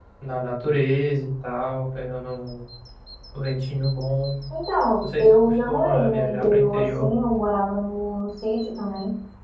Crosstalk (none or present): present